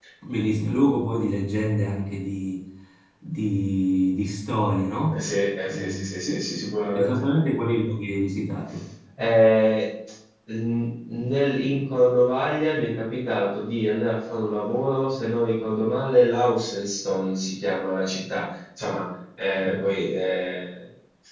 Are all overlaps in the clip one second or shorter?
Yes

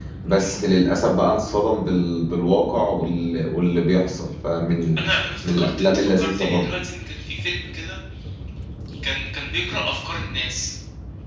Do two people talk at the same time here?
Yes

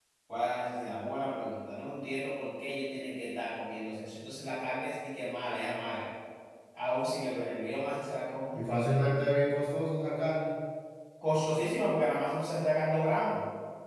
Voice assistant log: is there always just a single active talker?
Yes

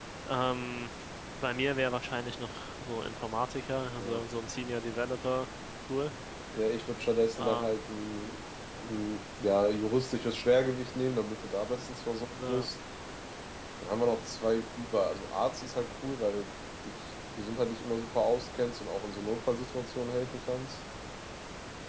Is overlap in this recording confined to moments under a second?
Yes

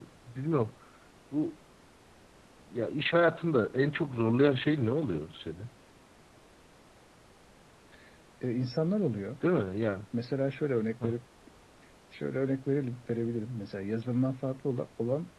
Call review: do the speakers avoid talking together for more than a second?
Yes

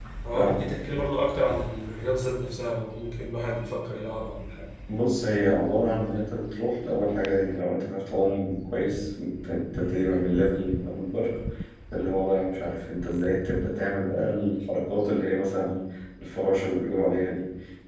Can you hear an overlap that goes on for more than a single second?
No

